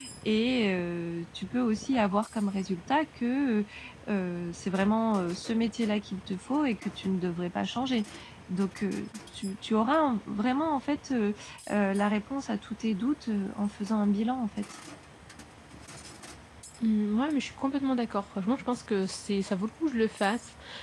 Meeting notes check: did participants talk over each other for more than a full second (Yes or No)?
No